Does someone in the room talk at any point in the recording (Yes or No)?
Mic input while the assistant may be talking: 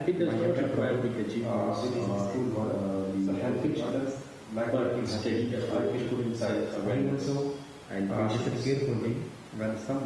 No